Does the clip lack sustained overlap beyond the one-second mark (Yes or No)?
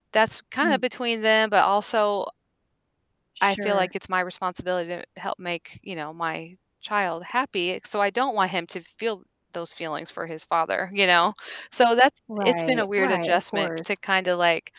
No